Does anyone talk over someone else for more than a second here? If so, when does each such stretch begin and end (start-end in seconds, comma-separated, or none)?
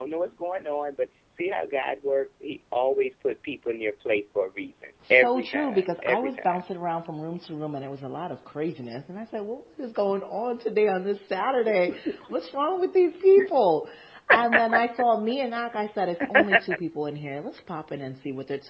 5.1-6.6